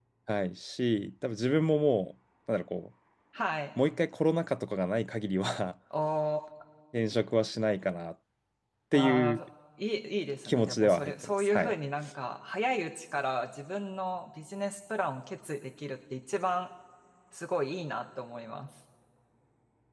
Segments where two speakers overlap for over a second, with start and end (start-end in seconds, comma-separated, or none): 10.4-11.7